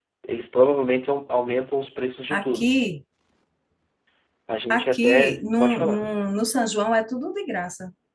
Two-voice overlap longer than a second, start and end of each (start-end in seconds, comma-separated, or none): 4.7-6.0